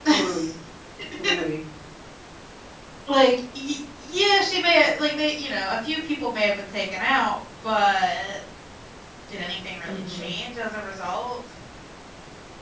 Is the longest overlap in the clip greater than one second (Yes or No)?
No